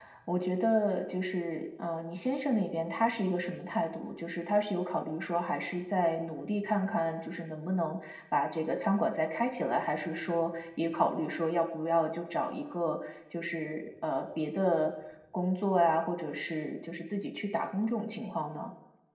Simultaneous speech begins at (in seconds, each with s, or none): none